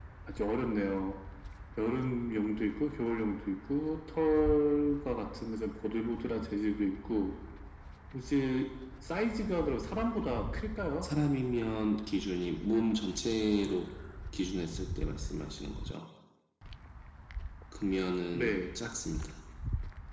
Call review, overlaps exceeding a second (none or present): none